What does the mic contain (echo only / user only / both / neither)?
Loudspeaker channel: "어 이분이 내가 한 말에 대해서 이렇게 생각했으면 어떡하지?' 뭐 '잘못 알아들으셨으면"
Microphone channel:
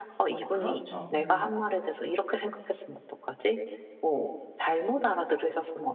both